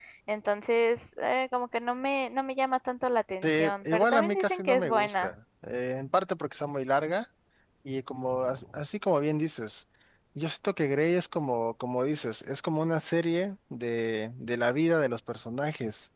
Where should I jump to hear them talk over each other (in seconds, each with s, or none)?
3.4 s